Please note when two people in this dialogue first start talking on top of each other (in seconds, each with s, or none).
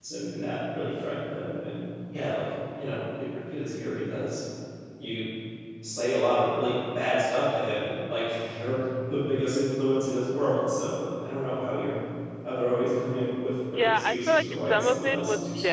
13.7 s